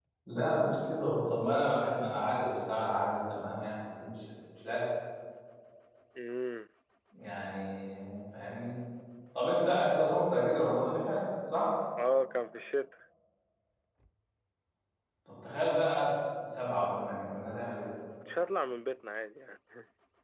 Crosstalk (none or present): none